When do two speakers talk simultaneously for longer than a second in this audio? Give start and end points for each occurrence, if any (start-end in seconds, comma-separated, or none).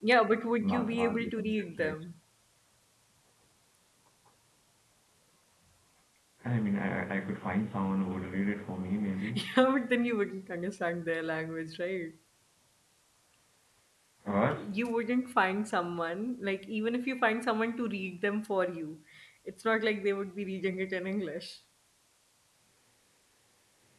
0.6-1.9